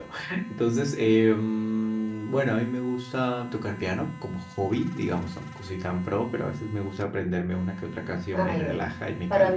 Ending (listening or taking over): taking over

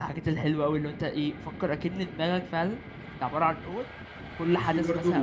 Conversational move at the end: listening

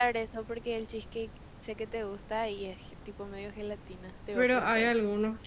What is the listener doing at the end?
taking over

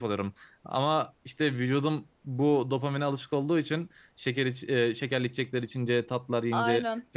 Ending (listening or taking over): listening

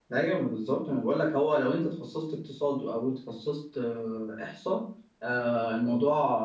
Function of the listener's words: listening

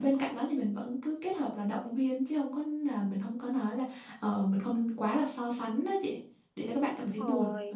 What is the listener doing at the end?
taking over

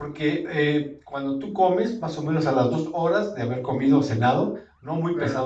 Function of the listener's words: listening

